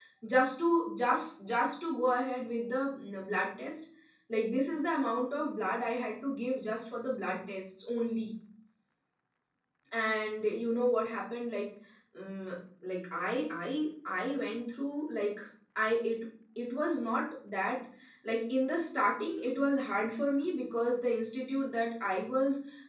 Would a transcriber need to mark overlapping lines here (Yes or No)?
No